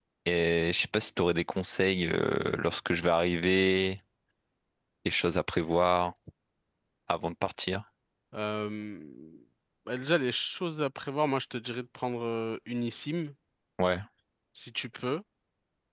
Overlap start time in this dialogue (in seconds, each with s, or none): none